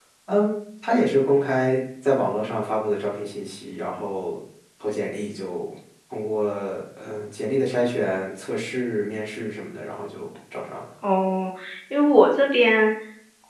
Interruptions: none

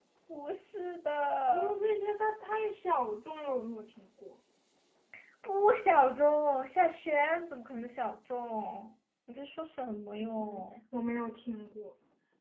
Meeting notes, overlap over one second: none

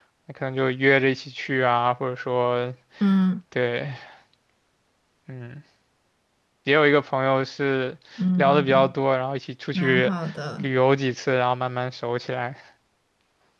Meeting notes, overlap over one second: none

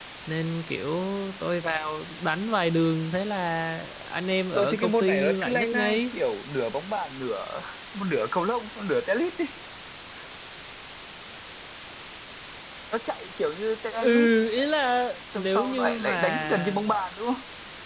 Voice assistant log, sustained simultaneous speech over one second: present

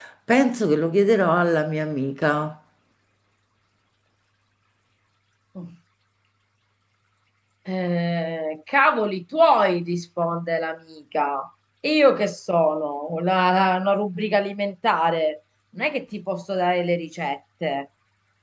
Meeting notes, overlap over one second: none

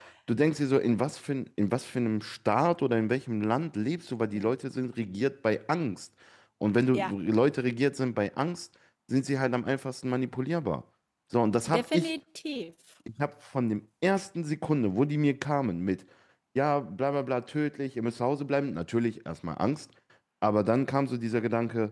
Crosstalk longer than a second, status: none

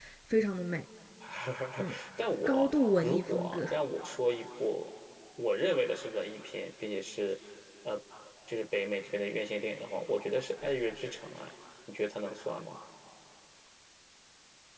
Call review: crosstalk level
present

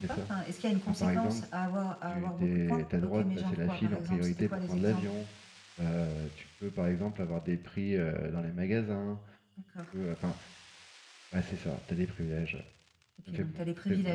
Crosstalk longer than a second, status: present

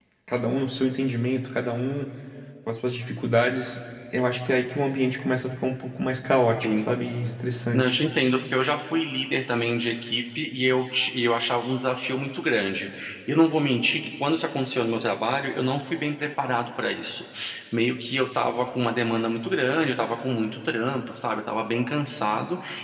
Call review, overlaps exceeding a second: none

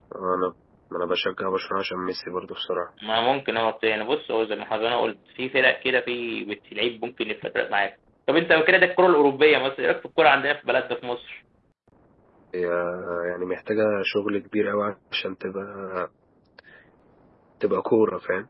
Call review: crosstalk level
none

